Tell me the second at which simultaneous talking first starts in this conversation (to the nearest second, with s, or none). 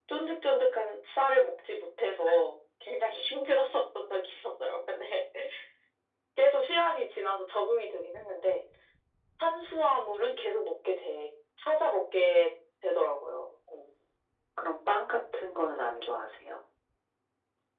none